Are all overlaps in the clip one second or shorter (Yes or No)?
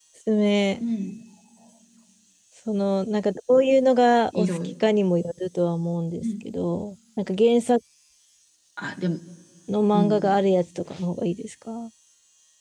Yes